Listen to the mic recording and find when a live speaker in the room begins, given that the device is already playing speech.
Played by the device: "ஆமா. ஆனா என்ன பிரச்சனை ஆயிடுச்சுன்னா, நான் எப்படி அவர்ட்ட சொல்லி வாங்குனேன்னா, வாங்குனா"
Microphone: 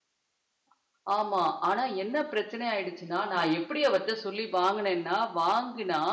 none

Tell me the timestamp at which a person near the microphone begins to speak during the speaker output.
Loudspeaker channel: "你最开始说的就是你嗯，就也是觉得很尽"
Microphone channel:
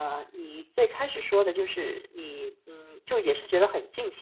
none

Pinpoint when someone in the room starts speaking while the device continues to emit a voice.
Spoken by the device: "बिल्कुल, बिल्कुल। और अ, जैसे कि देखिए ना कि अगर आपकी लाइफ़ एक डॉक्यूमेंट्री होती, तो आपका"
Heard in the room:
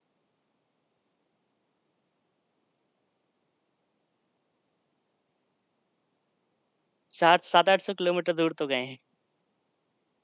7 s

